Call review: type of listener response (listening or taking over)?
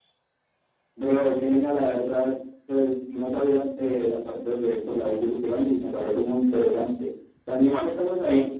listening